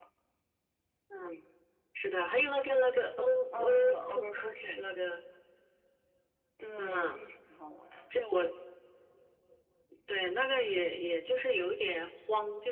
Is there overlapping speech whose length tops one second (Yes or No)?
Yes